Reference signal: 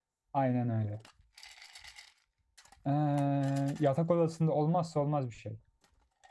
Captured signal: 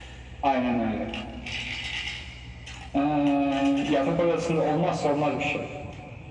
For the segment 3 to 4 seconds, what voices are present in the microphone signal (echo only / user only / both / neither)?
echo only